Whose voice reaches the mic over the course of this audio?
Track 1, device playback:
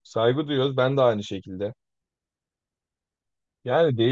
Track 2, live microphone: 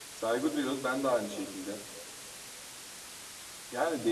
echo only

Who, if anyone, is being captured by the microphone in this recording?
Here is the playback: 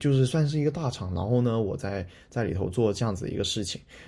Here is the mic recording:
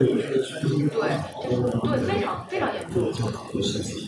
both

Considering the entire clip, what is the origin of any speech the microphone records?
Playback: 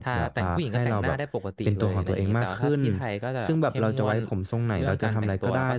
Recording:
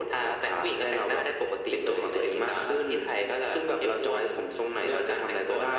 echo only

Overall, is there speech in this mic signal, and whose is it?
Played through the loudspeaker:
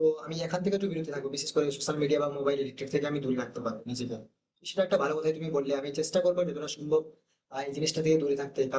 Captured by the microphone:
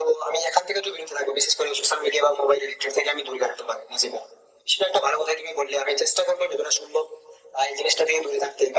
echo only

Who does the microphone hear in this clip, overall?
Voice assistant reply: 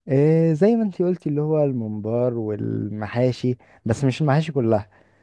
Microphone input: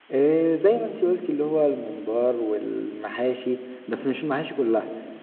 echo only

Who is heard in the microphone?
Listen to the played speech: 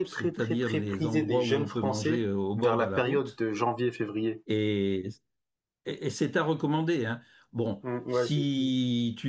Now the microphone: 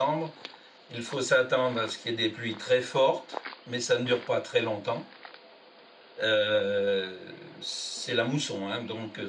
user only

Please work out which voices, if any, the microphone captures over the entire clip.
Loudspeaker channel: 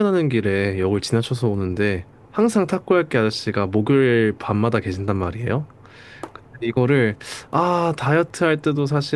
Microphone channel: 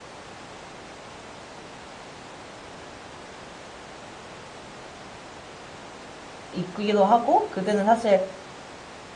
user only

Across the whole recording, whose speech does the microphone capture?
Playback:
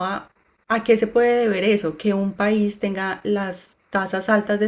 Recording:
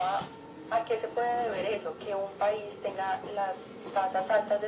echo only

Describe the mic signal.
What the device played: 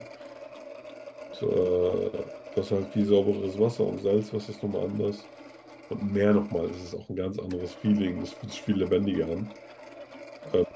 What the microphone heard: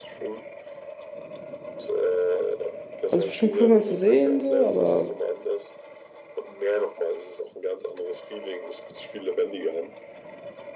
both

